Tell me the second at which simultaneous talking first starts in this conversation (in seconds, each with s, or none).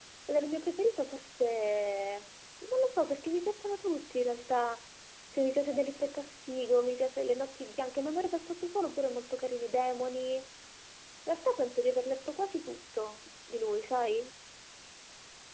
none